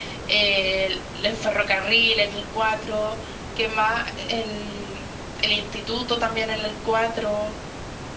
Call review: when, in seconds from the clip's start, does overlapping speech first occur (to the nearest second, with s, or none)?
none